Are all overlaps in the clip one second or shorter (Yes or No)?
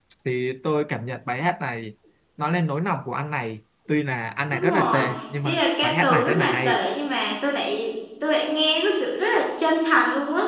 No